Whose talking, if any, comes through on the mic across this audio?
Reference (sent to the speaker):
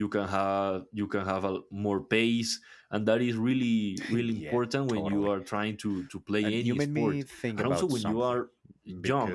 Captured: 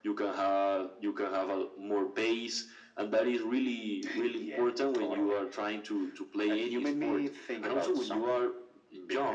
echo only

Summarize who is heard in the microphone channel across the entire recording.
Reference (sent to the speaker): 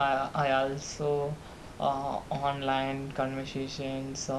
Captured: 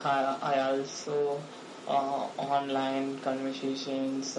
echo only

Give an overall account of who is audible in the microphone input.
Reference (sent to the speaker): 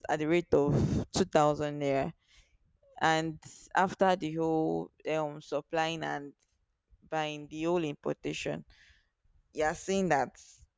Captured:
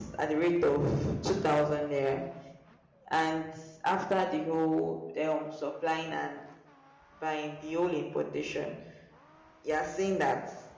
echo only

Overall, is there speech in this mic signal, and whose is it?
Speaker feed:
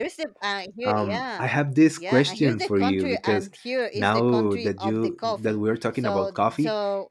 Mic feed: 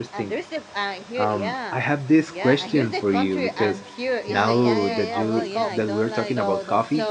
both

